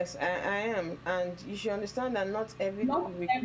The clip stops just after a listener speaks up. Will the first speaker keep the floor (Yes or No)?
Yes